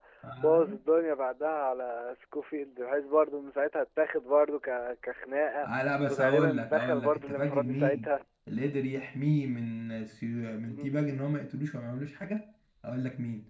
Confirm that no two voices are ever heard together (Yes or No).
No